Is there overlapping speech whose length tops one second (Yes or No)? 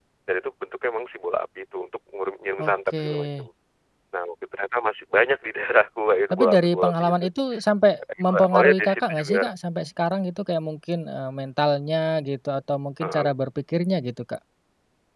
Yes